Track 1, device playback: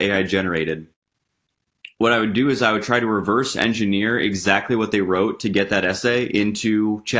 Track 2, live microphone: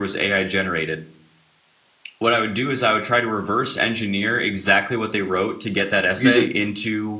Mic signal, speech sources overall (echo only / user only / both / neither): both